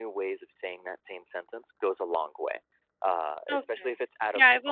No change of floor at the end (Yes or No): No